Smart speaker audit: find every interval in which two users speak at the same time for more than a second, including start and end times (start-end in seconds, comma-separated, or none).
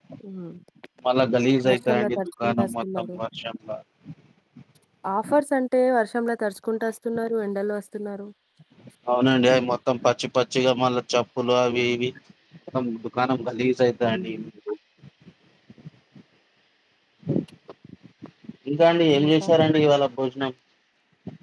1.7-3.1